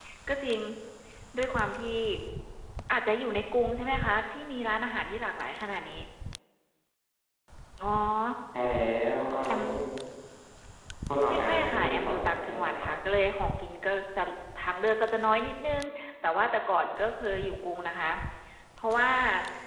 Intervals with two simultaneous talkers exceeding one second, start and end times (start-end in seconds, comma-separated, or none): 11.3-12.9